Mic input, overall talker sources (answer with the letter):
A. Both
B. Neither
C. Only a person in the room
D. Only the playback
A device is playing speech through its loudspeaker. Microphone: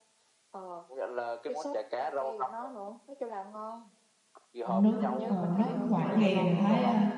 A